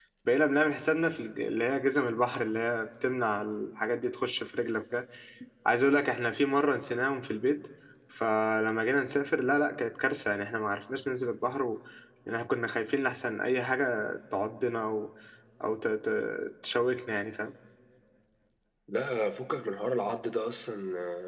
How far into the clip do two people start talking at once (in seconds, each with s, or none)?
none